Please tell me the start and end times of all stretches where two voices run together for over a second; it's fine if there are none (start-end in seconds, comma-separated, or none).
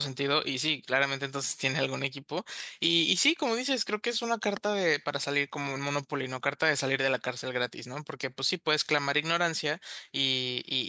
none